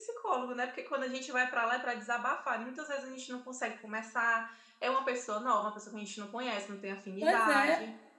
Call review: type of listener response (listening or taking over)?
taking over